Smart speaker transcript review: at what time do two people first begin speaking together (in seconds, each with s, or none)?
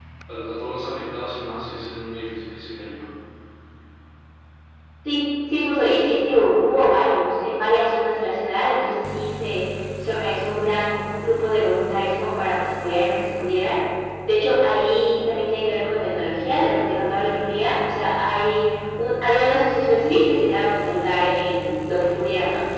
none